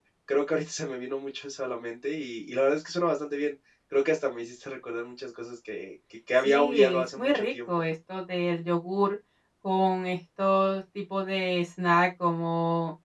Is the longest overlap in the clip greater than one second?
Yes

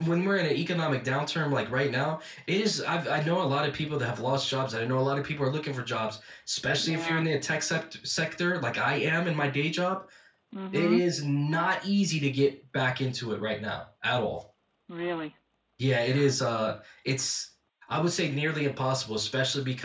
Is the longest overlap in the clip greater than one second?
No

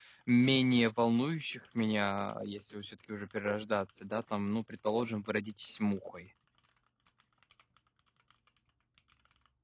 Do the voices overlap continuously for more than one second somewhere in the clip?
No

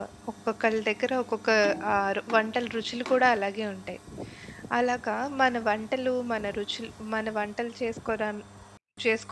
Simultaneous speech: No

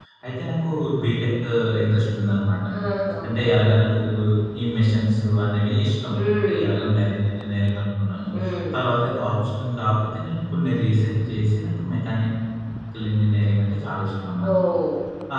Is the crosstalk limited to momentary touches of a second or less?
Yes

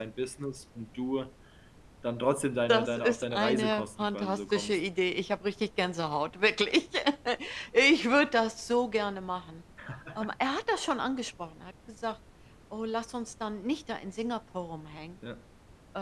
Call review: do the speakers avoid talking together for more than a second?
No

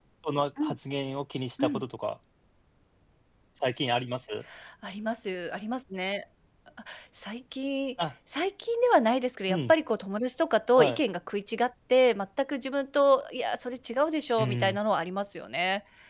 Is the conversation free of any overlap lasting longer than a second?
Yes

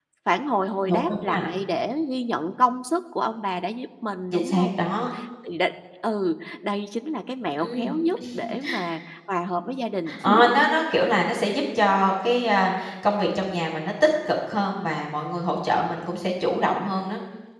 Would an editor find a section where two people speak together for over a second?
No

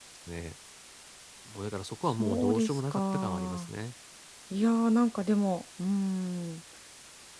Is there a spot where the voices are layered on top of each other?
Yes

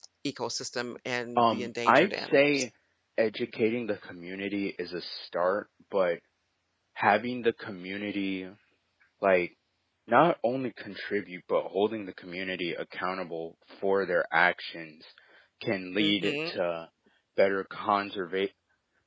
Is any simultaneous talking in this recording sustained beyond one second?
Yes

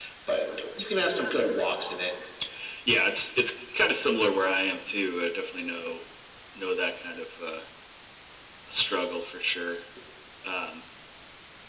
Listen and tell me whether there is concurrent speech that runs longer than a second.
No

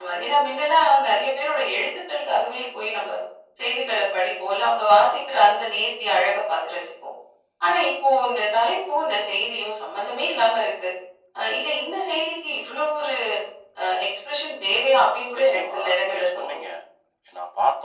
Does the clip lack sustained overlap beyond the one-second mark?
No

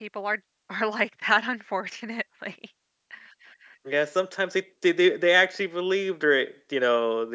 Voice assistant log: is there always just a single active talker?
Yes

